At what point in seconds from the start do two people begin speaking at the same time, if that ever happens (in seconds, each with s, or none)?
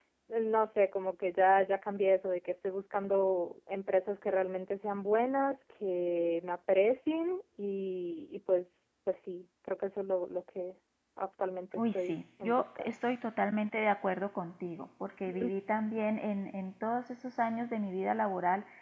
11.8 s